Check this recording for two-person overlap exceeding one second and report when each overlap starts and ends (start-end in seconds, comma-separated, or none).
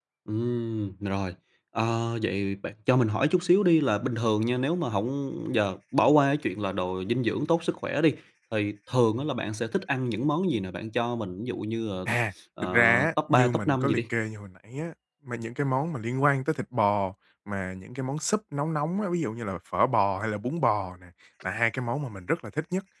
12.6-14.0